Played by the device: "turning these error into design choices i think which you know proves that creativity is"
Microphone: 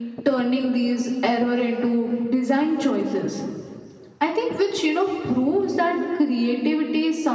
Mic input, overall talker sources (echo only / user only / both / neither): echo only